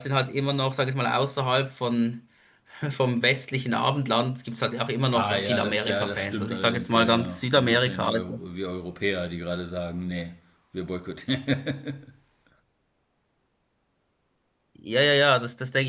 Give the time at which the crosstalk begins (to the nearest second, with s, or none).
5 s